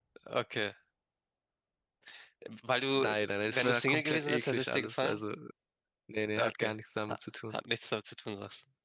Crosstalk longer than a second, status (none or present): present